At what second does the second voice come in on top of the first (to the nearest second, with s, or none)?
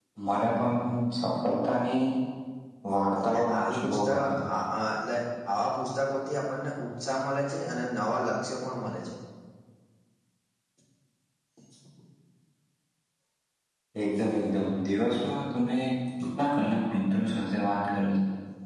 3 s